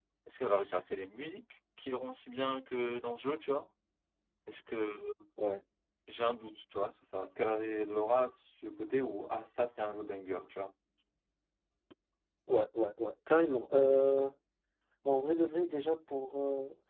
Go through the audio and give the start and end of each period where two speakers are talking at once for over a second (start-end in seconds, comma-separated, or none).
none